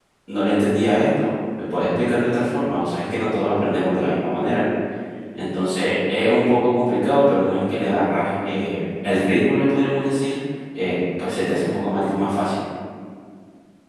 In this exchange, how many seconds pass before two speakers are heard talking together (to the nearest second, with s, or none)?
none